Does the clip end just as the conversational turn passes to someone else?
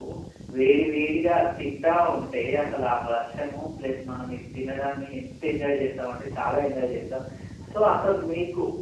No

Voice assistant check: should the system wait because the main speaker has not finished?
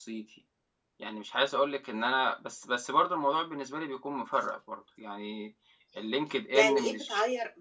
No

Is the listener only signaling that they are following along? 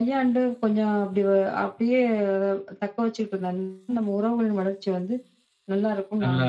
No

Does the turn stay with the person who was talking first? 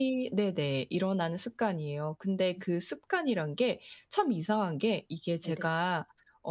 Yes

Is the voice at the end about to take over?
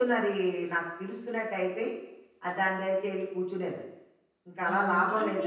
Yes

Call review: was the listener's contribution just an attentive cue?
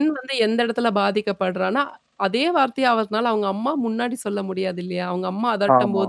Yes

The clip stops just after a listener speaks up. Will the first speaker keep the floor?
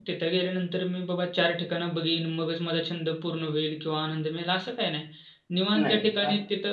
Yes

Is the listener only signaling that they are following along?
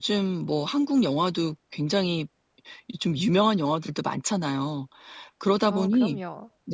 Yes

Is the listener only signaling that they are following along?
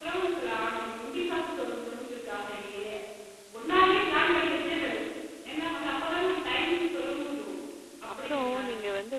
No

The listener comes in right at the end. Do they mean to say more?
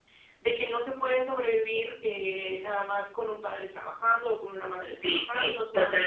Yes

